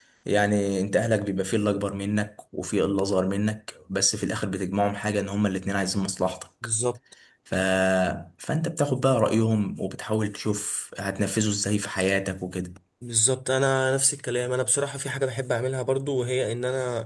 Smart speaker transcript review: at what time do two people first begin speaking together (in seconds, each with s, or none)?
none